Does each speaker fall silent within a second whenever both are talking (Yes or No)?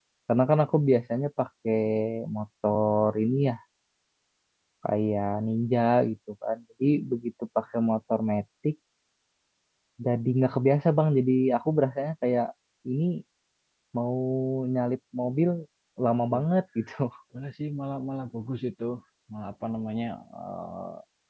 Yes